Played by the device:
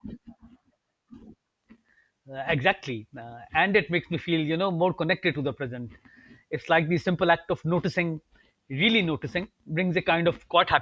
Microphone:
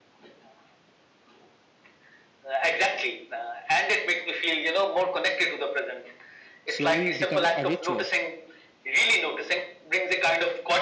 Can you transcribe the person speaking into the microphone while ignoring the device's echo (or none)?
slowly become a ritual.